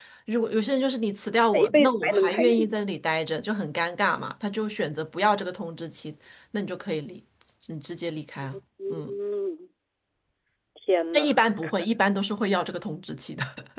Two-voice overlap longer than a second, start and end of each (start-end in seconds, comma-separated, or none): 1.5-2.8